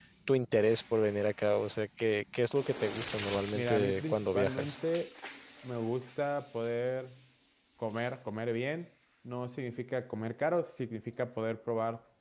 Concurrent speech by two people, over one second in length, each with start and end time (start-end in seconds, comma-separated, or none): 3.5-4.8